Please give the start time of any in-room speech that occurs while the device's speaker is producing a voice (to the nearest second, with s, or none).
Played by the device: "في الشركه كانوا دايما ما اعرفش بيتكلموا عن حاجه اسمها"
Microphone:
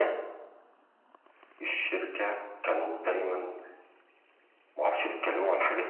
none